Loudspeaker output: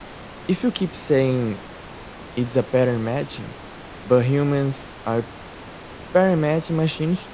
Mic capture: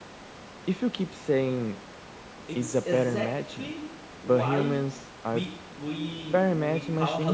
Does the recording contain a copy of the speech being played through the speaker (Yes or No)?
Yes